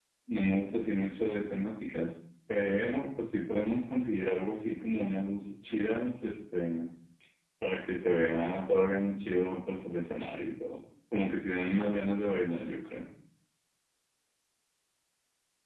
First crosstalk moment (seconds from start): none

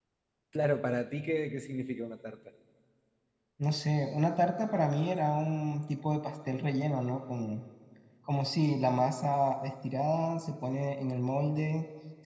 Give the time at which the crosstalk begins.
none

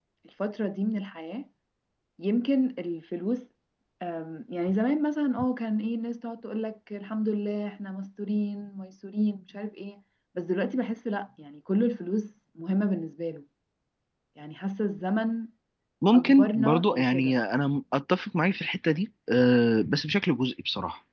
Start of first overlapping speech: 16 s

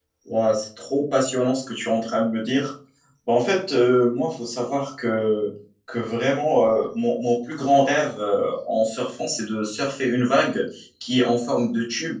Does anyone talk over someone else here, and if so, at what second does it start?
none

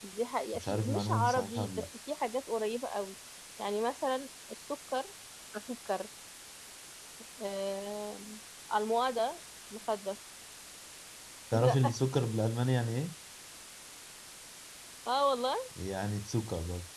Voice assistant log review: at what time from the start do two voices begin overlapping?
1 s

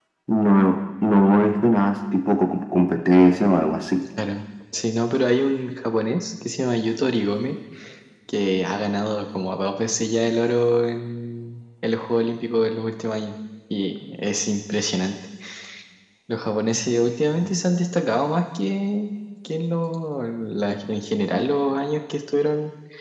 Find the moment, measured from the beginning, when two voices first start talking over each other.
none

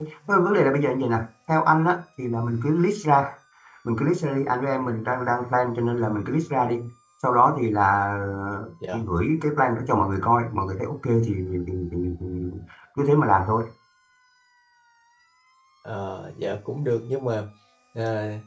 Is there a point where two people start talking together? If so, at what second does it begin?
none

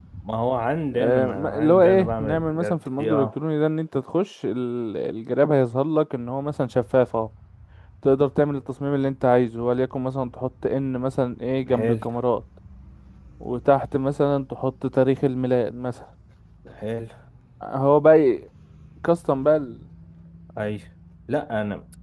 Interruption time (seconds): 1 s

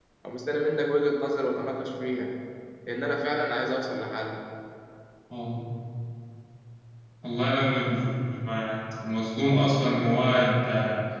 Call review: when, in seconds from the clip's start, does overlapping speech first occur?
none

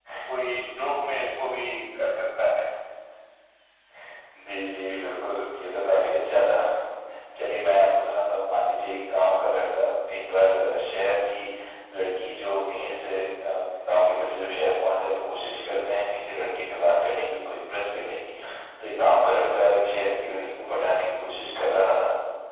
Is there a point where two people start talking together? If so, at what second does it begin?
none

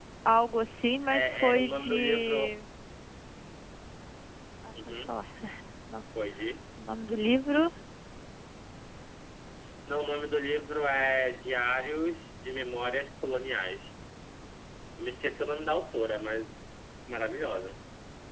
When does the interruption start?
1 s

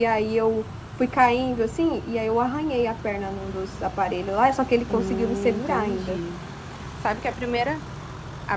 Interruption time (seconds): 5 s

